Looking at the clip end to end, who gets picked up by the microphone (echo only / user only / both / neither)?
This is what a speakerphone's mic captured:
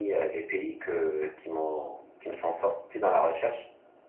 echo only